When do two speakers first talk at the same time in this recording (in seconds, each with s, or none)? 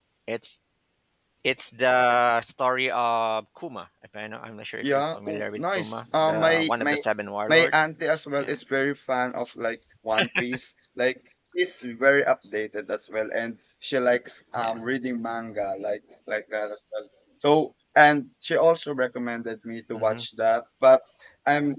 4.8 s